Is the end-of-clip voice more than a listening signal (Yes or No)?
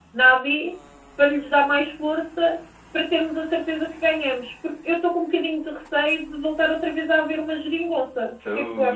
Yes